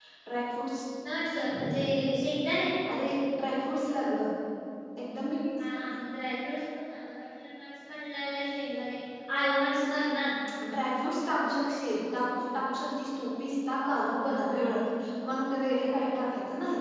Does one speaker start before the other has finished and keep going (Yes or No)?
No